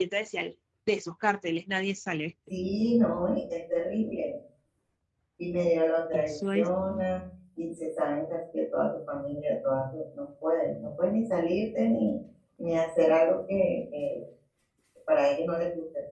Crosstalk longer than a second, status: none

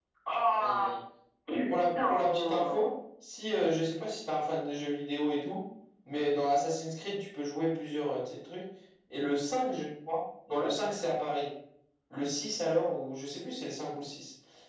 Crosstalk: present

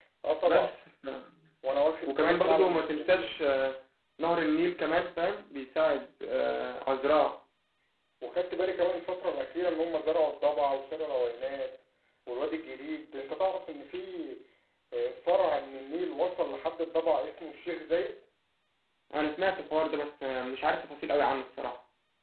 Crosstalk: present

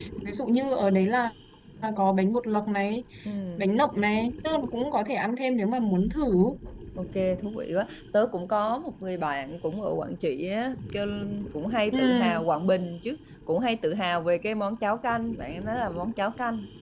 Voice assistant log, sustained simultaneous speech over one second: none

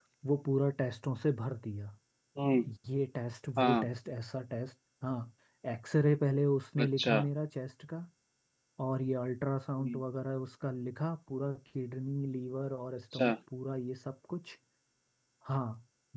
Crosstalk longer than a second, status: none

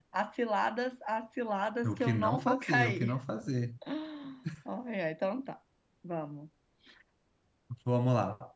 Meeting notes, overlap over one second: present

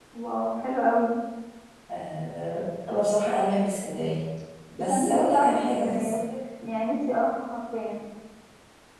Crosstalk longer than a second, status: present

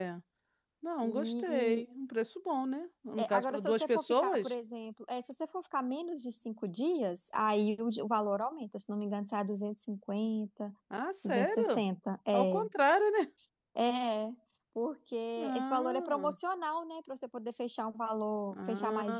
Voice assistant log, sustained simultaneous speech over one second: present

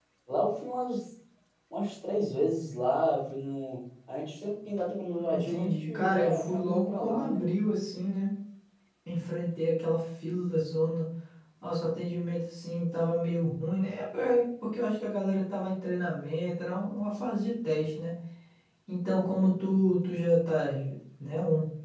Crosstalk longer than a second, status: present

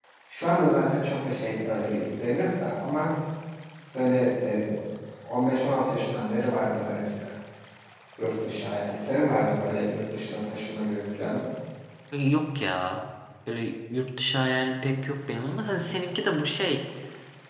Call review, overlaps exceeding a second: none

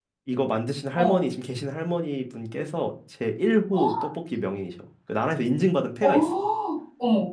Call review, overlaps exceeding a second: none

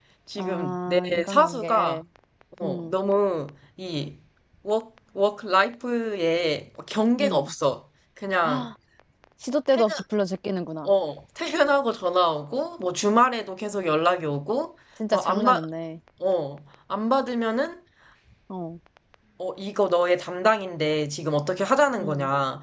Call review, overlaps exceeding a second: present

